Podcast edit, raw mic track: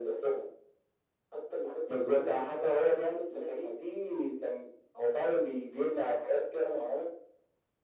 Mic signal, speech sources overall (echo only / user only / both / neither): echo only